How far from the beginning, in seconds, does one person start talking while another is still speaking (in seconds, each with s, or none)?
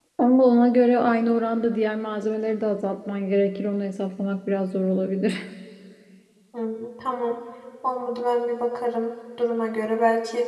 none